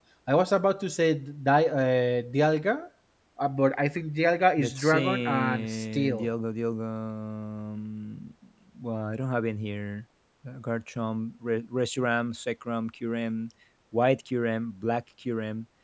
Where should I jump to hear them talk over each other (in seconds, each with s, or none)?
4.6 s